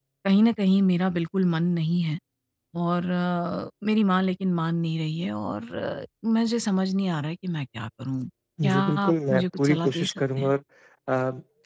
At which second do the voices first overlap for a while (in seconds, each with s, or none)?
8.6 s